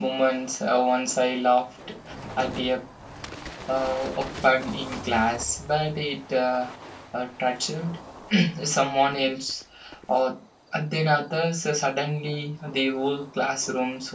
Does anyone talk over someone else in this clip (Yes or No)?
No